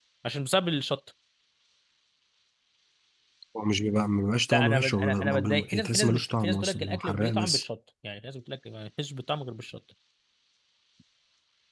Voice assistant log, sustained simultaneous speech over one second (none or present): present